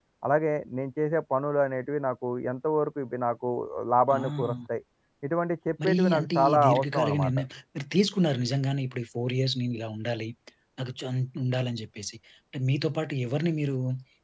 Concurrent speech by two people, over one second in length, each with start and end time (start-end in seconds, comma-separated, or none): 5.8-7.4